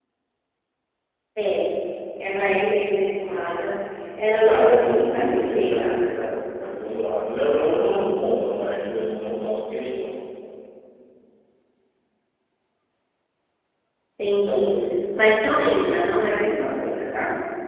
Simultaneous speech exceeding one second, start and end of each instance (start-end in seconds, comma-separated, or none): 4.4-6.0